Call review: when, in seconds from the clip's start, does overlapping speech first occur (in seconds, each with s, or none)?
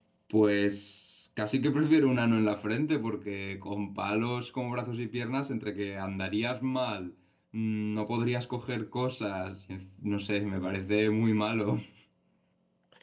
none